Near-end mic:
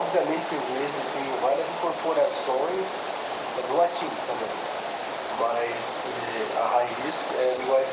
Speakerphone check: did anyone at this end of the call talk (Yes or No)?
No